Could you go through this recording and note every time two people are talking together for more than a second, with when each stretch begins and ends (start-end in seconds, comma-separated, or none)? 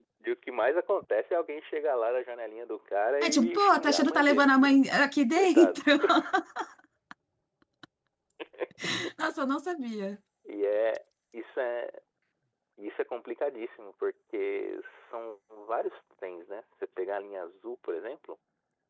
3.2-4.8